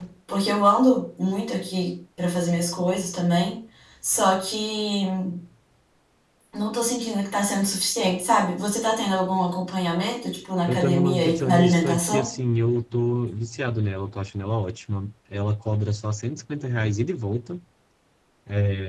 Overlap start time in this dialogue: 10.7 s

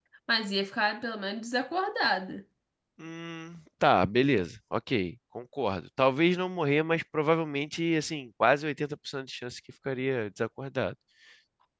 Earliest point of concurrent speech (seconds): none

